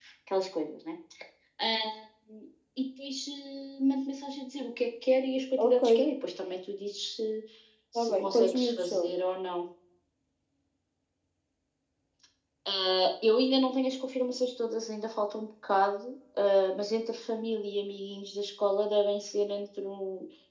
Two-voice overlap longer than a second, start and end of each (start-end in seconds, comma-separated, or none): 8.0-9.2